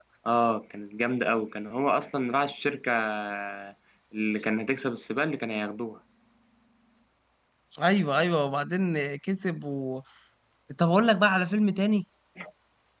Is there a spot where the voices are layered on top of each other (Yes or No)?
No